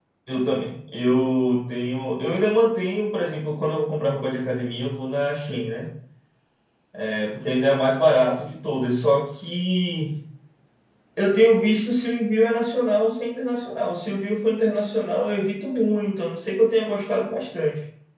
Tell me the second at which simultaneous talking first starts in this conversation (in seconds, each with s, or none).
none